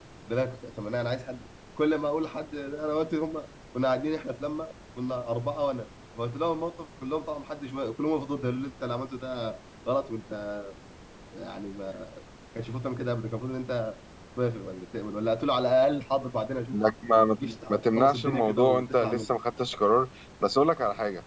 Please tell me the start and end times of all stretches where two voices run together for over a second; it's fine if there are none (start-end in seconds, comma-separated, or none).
17.3-19.3